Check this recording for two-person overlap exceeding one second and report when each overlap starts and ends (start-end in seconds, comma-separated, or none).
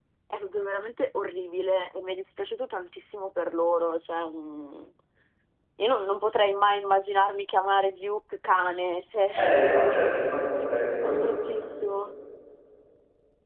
none